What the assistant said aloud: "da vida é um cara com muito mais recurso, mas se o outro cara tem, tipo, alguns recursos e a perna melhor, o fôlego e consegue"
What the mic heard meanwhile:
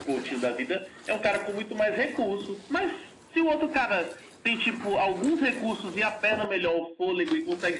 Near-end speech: none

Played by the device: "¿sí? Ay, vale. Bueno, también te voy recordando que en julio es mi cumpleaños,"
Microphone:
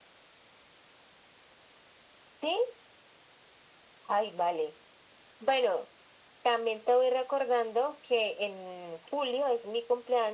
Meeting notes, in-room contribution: none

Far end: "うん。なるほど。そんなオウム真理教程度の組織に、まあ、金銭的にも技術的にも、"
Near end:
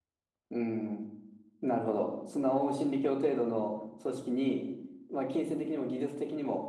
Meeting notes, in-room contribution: none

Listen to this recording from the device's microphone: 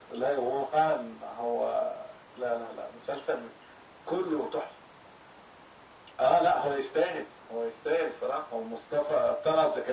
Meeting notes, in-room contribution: none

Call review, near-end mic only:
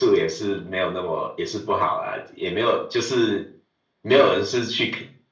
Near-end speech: none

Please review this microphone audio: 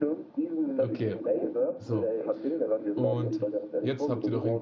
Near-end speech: present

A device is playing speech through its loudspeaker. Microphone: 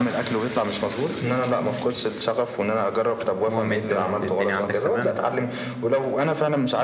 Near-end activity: present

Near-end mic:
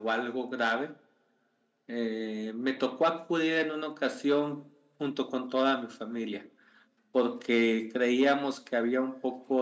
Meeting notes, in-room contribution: none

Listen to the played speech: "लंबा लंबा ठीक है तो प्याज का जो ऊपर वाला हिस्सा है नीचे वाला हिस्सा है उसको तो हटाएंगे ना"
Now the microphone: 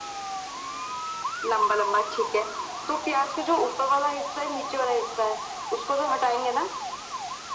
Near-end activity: none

